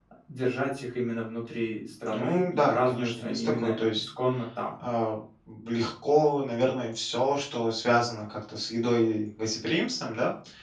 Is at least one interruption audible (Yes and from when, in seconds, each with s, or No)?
Yes, from 2.1 s